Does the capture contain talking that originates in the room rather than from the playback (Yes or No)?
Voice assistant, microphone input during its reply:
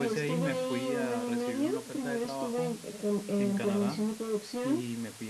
Yes